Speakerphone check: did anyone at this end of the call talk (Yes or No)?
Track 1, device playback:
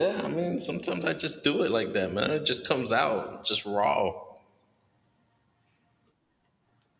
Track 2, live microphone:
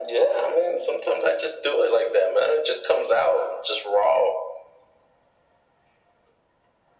No